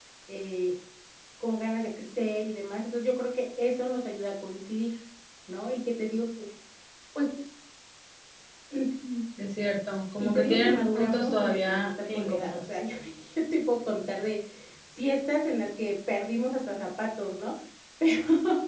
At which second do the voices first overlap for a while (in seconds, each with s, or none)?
10.2 s